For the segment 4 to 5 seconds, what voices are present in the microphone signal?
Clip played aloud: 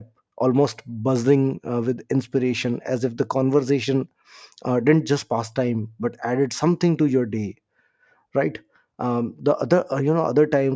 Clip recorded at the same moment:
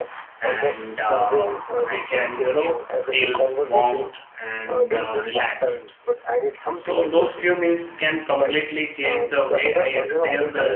both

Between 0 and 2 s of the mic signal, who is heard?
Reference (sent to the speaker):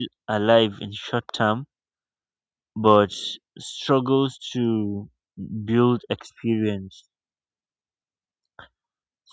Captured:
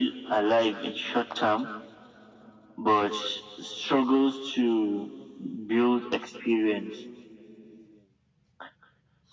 echo only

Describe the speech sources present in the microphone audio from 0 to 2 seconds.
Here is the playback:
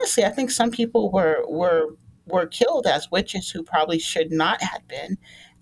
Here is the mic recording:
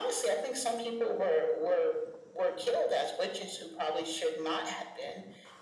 echo only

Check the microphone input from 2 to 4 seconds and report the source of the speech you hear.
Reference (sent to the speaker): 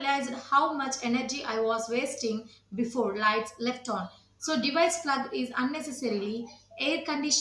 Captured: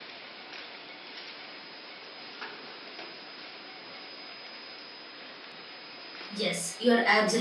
neither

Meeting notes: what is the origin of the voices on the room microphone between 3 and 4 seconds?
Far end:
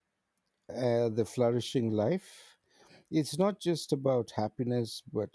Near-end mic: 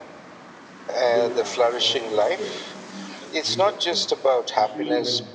both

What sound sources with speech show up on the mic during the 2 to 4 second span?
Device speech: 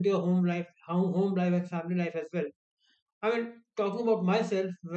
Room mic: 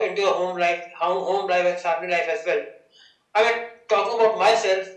echo only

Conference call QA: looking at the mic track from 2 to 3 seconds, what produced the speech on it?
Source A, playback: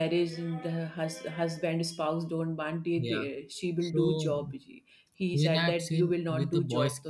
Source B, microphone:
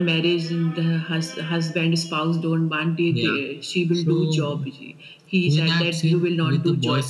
echo only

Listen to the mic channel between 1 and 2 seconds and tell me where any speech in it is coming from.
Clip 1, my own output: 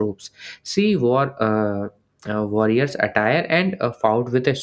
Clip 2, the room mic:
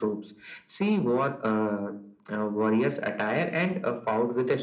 echo only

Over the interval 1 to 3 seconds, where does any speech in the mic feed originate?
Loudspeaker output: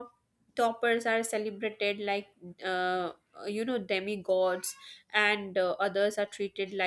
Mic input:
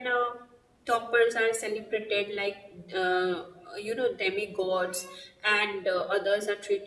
echo only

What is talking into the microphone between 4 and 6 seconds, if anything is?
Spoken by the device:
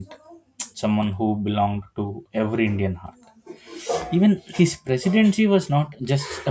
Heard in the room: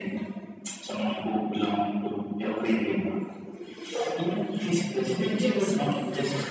both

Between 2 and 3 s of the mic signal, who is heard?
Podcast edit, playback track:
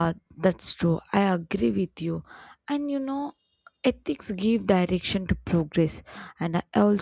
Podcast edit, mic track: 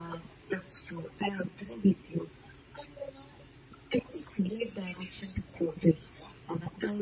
echo only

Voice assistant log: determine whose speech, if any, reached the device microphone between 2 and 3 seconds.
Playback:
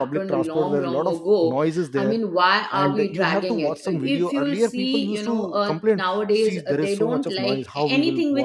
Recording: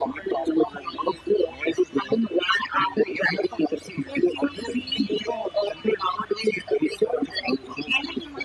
echo only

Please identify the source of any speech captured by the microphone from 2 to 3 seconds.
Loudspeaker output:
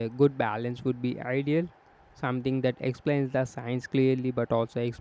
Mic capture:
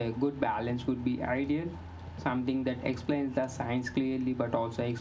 echo only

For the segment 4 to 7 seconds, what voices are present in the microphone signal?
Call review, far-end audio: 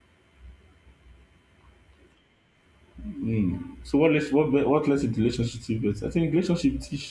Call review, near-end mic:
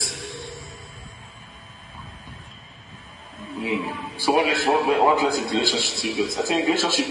echo only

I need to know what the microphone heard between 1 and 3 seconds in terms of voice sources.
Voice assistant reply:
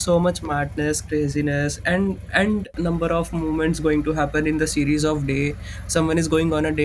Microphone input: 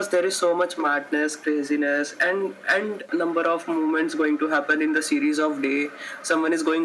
echo only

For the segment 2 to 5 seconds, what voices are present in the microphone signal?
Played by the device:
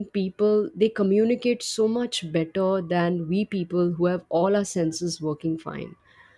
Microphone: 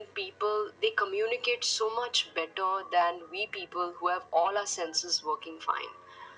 echo only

